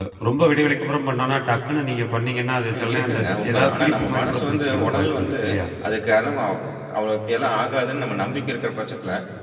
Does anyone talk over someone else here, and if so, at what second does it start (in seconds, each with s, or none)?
2.7 s